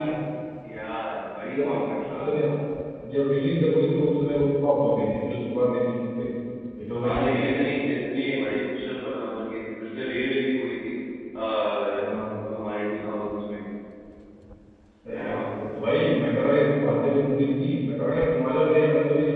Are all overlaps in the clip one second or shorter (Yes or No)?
Yes